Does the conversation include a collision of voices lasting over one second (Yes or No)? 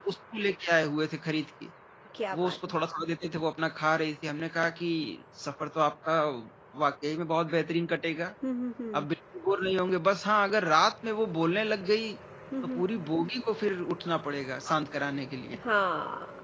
No